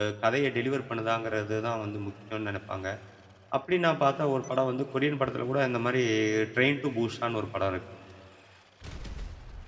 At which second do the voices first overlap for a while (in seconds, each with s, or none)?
none